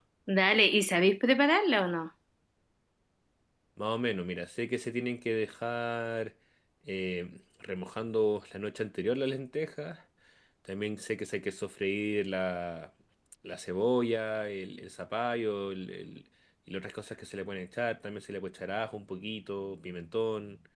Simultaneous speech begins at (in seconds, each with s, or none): none